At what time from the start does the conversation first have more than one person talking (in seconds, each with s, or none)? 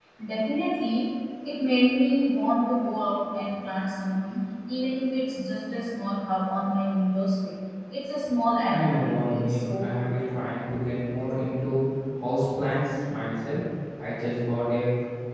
8.7 s